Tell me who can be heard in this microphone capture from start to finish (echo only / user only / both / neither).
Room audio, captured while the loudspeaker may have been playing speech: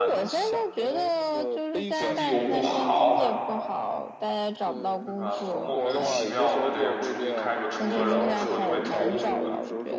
both